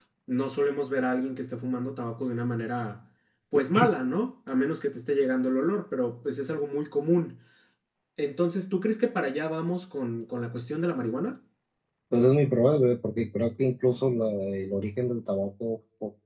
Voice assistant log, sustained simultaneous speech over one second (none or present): none